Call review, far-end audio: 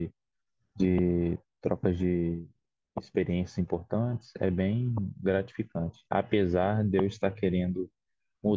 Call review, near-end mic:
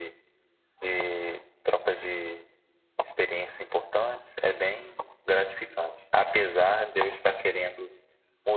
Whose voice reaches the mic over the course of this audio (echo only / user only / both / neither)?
echo only